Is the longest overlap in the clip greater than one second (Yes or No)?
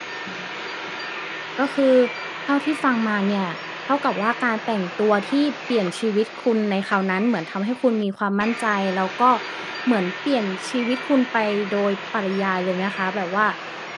No